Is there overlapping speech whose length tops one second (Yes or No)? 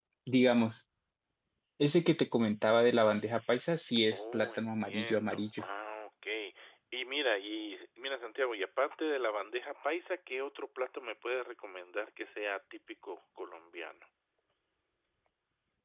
Yes